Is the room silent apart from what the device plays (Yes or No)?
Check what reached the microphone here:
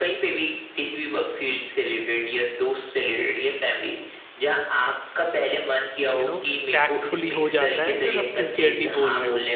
No